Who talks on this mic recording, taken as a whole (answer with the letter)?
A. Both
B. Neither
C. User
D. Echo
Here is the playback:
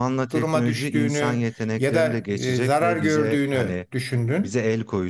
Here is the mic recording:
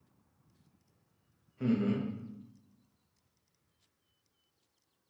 C